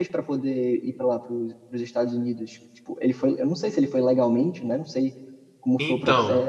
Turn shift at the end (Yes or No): Yes